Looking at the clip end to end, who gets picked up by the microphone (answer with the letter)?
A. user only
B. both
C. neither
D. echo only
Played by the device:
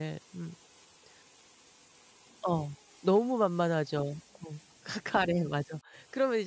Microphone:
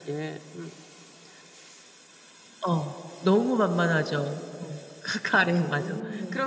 B